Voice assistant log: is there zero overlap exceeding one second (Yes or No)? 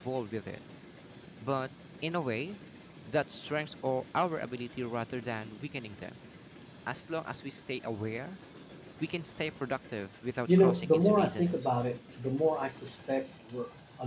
No